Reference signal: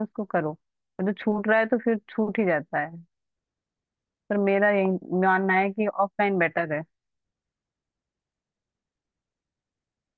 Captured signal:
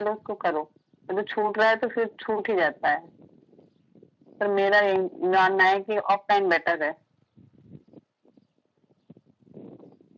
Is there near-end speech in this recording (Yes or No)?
No